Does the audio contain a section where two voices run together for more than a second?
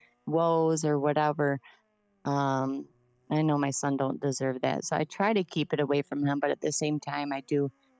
No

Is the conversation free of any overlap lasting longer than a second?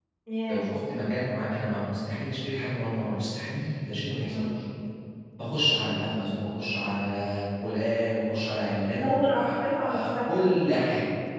No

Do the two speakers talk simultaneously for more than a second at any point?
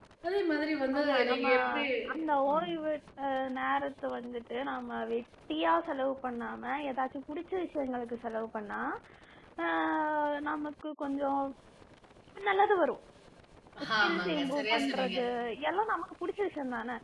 Yes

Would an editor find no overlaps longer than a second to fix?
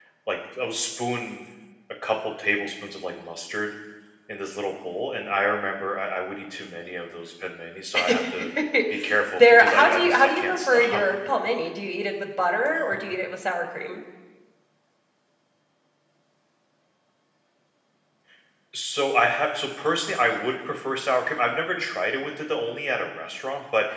No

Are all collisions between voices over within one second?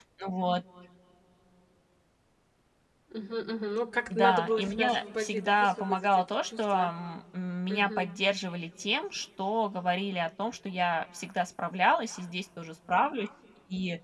No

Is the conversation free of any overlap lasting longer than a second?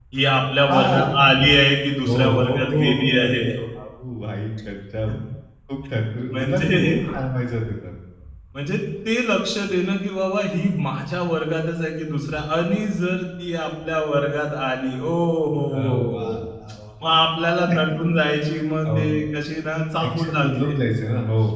No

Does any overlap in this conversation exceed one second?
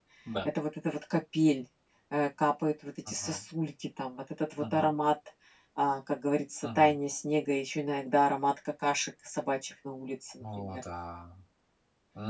No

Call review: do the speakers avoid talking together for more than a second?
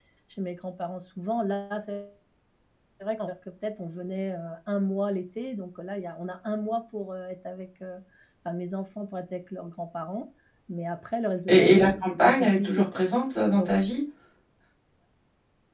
No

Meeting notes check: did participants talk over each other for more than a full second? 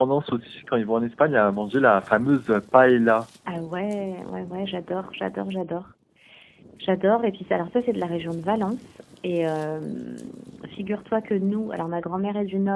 No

